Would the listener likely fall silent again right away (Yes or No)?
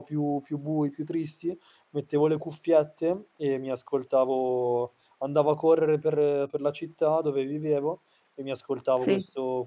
Yes